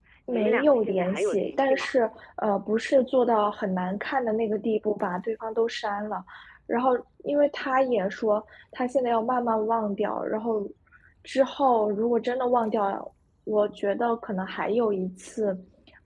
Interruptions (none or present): present